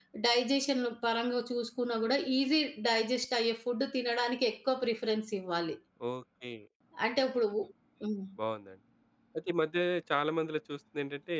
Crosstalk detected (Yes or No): No